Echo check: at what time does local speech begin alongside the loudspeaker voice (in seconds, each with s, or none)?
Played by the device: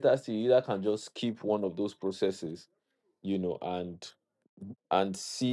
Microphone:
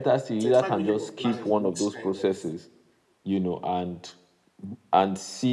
0.4 s